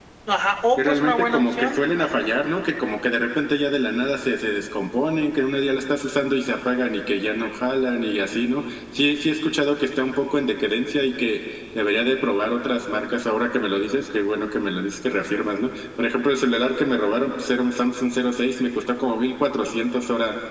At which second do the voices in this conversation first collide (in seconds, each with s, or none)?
0.8 s